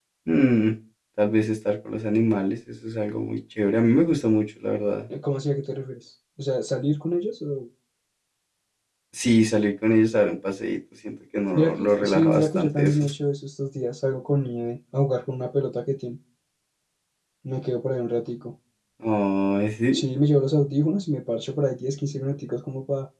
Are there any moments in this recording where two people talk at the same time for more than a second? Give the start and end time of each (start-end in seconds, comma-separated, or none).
11.5-13.0